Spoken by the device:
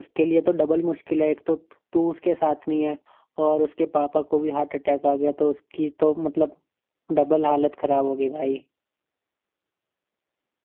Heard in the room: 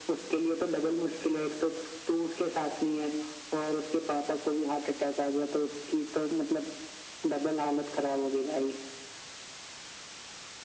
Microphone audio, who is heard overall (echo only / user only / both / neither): echo only